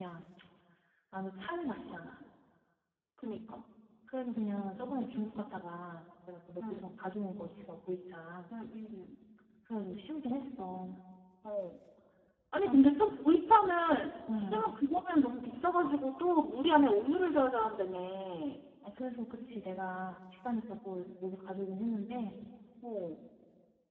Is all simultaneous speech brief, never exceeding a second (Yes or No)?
Yes